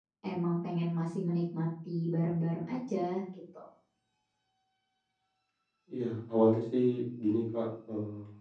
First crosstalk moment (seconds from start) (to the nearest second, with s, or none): none